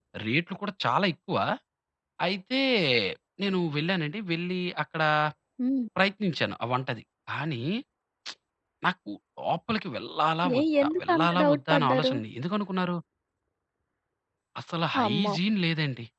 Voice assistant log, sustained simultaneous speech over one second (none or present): present